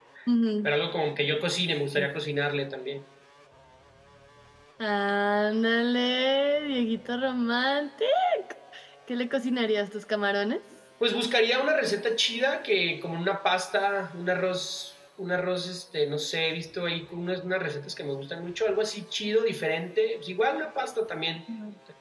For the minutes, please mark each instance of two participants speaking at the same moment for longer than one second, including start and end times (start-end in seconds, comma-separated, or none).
none